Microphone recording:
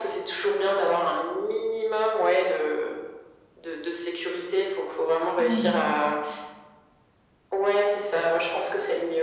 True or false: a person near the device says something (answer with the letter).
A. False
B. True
B